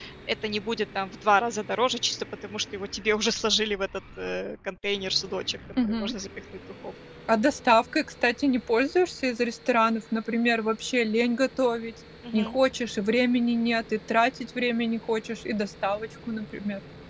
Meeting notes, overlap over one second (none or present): none